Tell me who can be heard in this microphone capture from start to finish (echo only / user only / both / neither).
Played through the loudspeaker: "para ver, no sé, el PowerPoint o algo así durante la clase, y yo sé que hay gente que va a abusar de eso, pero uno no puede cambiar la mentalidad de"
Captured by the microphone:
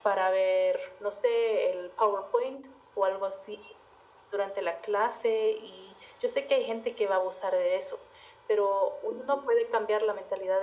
echo only